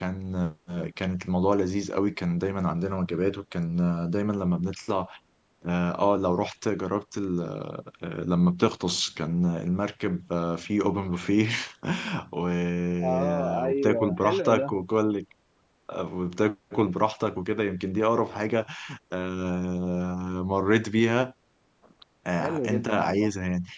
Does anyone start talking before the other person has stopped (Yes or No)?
Yes